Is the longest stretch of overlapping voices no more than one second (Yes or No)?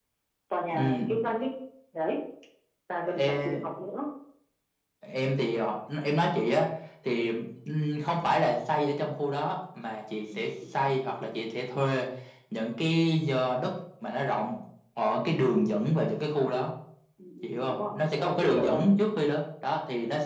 No